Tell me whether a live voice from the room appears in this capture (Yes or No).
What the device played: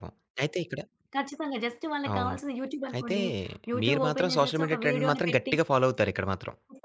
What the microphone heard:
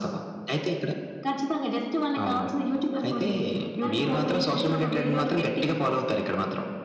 Yes